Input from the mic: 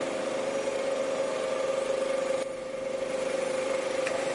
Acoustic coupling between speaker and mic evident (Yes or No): No